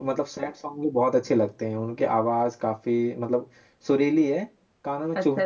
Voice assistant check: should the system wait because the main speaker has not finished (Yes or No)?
No